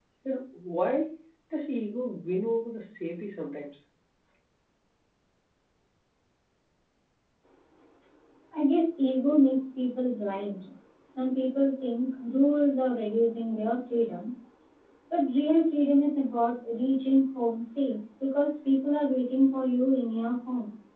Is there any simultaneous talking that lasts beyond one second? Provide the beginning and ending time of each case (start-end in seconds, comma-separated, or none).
none